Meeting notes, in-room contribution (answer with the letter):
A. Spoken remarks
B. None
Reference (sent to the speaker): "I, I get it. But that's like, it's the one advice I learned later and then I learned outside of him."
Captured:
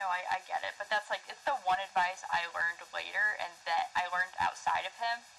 B